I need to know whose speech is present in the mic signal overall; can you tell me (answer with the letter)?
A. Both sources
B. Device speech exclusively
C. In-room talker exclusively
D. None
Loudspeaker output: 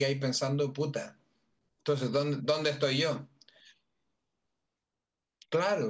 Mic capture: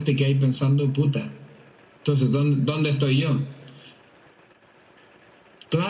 B